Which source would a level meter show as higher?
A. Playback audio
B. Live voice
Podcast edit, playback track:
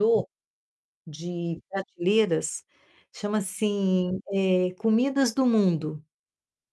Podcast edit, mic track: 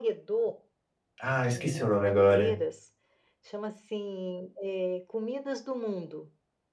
B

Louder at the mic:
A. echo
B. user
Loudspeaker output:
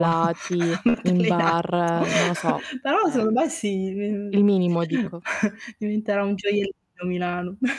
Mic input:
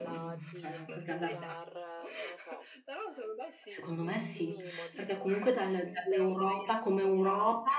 B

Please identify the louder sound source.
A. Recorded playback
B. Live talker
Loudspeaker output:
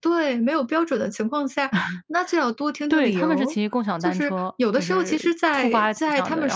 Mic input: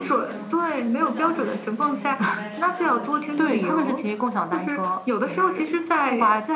A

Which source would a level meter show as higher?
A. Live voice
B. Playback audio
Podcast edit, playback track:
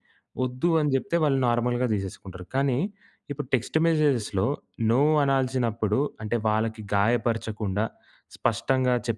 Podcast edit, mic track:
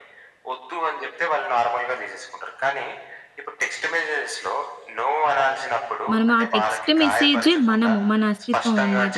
A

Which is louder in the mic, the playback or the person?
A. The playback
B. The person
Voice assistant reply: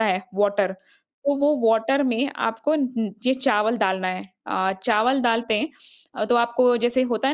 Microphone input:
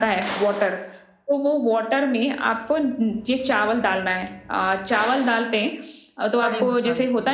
A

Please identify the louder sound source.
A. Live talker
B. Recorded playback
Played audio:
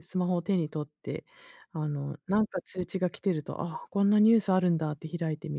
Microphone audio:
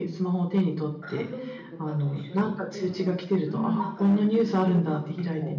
B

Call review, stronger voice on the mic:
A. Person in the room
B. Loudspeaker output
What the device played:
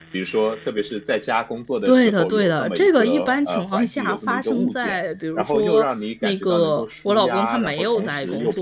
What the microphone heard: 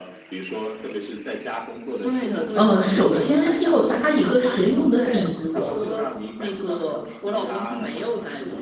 A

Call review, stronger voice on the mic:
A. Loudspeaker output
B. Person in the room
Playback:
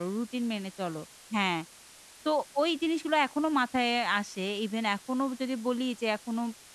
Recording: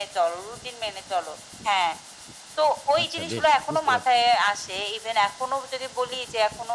A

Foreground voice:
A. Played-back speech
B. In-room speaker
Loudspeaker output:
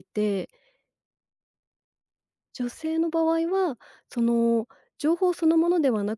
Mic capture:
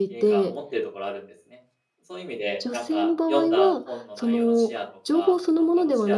A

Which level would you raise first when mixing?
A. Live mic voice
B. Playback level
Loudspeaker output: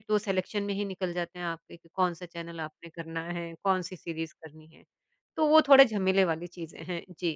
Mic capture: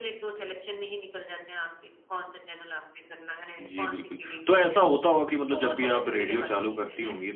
B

